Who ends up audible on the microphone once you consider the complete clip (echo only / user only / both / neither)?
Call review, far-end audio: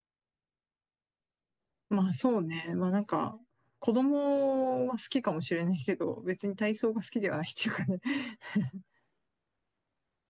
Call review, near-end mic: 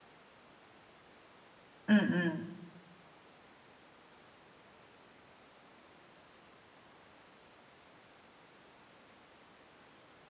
user only